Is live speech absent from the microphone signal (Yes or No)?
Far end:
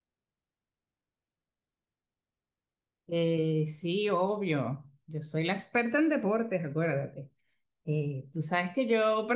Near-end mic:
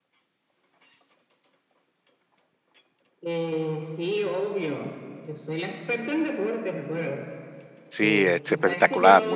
No